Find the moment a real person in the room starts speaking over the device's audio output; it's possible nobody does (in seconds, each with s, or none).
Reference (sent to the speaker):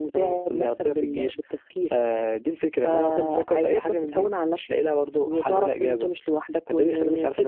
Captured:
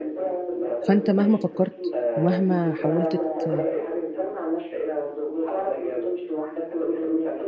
0.8 s